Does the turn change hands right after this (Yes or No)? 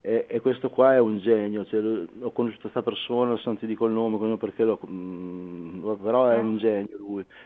No